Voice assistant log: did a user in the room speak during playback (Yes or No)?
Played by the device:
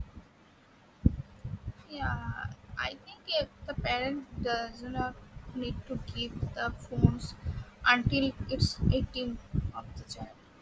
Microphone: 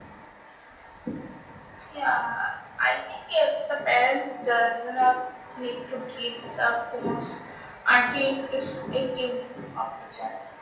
No